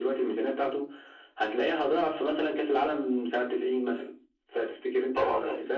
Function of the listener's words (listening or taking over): taking over